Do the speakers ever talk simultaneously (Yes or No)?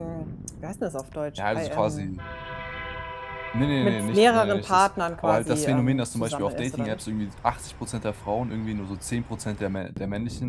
Yes